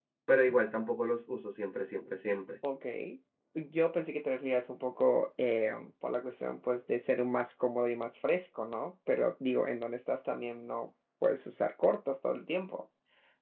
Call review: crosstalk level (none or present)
none